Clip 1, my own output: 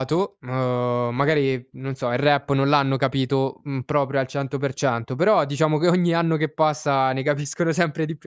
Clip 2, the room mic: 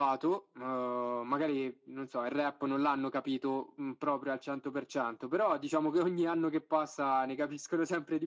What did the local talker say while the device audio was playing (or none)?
none